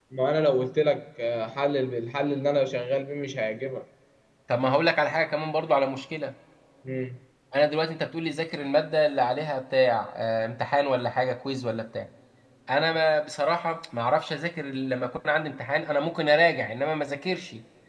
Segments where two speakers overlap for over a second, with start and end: none

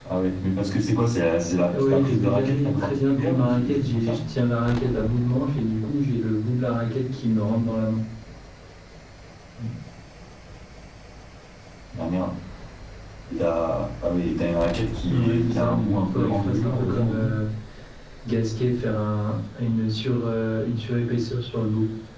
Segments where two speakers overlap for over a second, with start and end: 1.7-4.2, 15.1-17.4

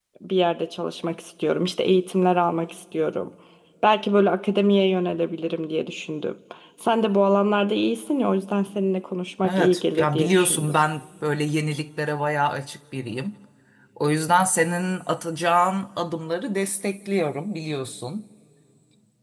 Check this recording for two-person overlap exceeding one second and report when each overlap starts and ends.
9.4-10.7

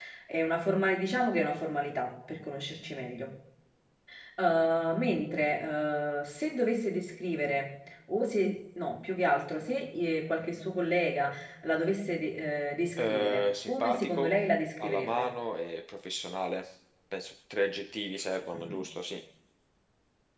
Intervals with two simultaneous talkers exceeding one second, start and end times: 13.0-14.3

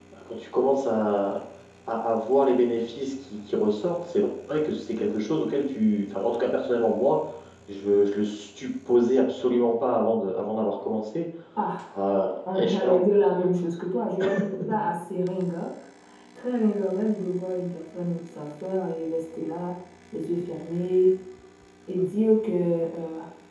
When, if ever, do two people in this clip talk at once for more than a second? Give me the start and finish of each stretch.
none

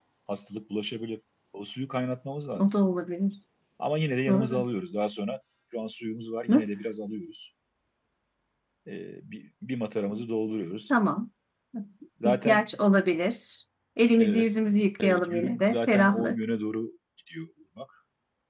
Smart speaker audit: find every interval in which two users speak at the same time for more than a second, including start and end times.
15.0-16.4

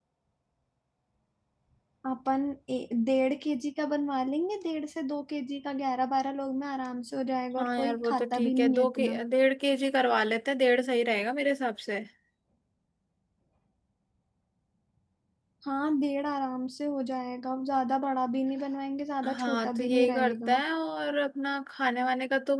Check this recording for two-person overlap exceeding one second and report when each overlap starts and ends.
7.6-9.2, 19.4-20.6

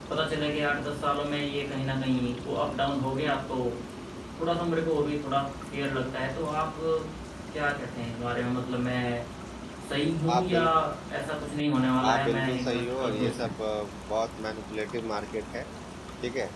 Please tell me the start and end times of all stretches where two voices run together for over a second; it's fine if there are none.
12.1-13.5

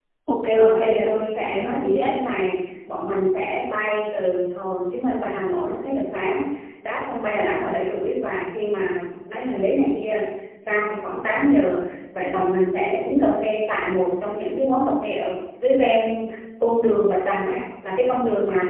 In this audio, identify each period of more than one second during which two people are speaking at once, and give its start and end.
0.5-2.1

